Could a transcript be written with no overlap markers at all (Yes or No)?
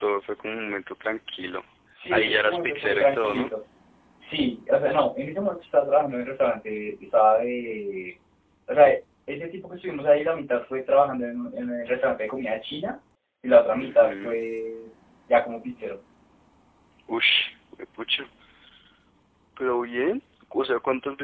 No